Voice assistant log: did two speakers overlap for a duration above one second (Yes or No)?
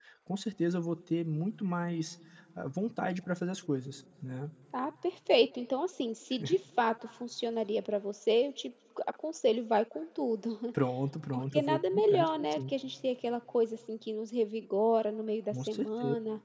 Yes